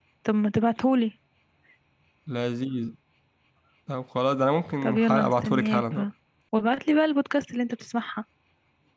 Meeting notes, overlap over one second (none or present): present